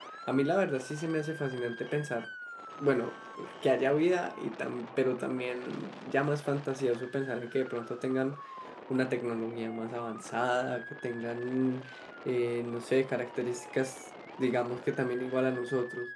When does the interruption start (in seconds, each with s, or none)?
none